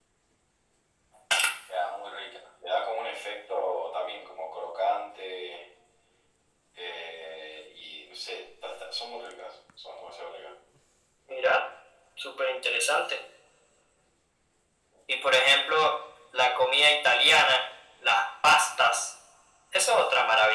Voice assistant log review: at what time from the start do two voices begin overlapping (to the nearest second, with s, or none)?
none